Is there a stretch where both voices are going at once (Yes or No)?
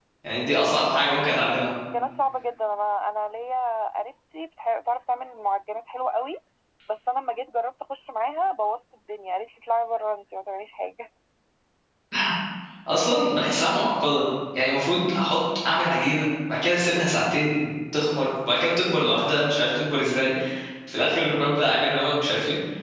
No